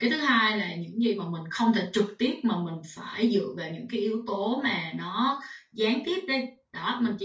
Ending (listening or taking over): listening